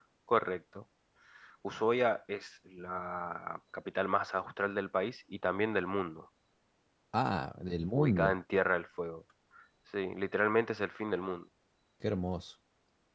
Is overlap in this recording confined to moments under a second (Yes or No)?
Yes